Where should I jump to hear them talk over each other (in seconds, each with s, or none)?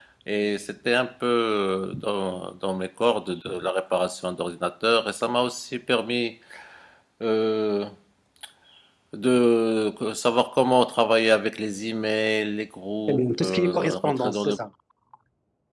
13.1 s